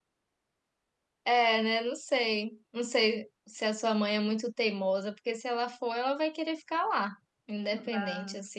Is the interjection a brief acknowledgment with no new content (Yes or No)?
No